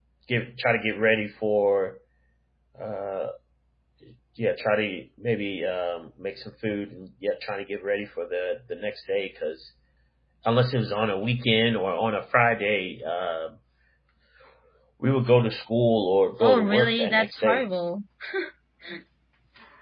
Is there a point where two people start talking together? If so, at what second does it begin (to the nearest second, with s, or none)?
16 s